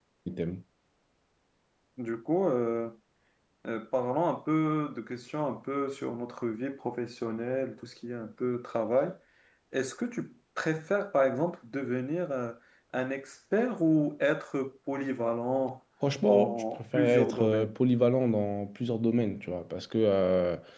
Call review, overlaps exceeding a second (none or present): present